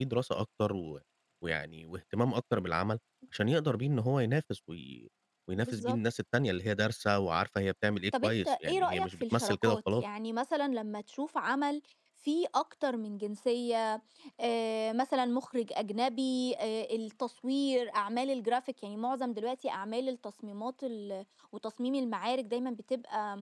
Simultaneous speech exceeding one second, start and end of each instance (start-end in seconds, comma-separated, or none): 8.2-10.0